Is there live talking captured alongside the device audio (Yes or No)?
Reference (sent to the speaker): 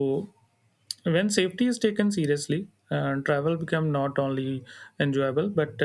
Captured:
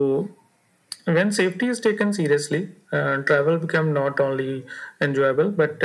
No